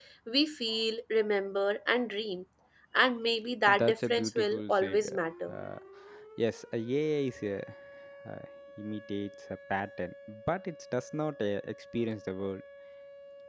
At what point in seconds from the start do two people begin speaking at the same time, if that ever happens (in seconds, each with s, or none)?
3.7 s